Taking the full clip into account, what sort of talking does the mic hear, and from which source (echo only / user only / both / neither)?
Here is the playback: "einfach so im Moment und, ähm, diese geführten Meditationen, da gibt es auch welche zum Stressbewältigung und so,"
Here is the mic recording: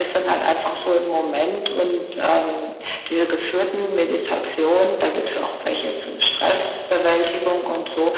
echo only